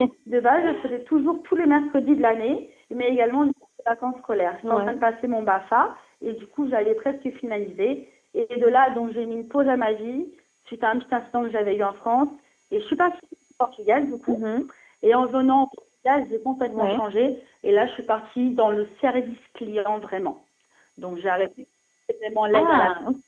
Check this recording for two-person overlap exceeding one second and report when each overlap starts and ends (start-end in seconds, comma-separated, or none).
none